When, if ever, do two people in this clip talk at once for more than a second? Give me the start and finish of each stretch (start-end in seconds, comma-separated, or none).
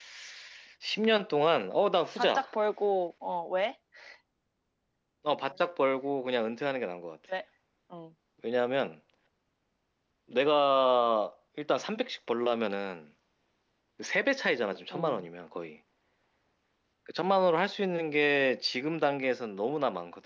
none